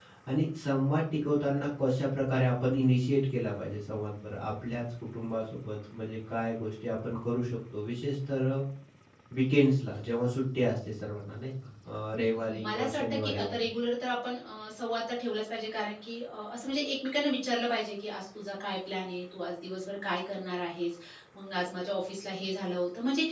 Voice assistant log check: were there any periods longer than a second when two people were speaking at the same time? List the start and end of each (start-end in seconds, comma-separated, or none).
12.2-13.5